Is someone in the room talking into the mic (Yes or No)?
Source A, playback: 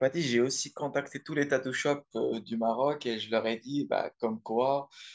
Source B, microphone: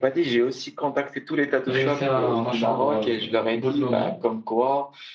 Yes